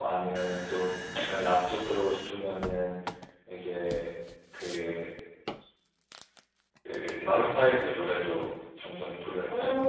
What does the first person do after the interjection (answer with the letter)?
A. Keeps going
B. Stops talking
B